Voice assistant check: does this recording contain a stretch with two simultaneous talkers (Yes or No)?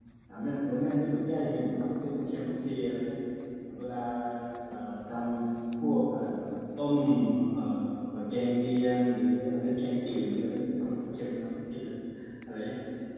No